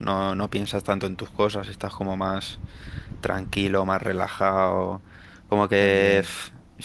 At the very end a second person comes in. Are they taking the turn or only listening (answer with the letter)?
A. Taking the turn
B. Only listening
B